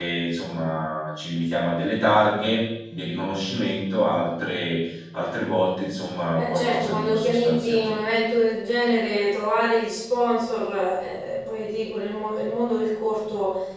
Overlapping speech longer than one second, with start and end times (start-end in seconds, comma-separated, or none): 6.3-8.0